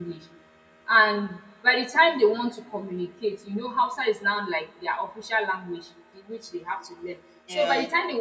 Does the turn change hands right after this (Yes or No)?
No